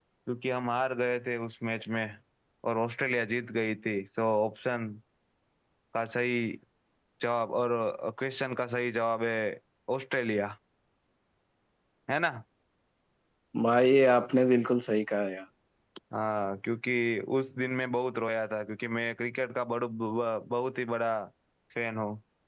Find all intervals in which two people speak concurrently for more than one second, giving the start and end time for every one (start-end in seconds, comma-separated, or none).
none